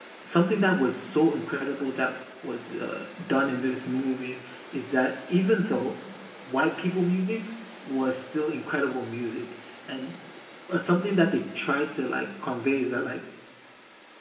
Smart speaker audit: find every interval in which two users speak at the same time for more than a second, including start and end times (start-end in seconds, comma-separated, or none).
none